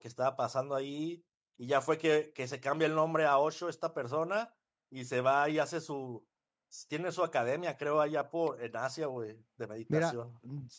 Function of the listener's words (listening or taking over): taking over